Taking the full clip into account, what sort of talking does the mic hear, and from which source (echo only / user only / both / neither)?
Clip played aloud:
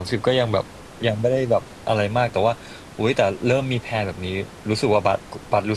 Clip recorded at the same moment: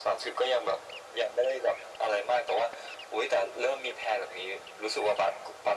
echo only